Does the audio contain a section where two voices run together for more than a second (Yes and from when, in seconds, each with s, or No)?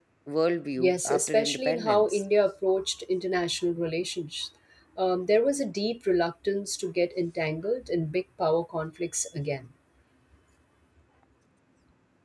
Yes, from 0.8 s